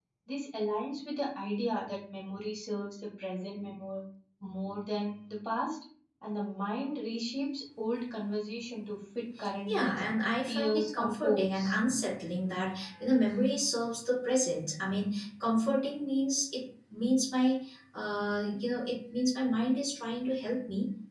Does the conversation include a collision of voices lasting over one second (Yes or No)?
Yes